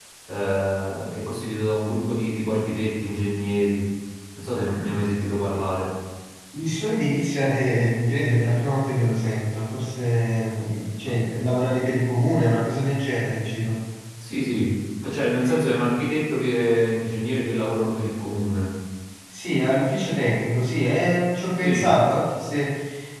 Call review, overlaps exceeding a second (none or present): none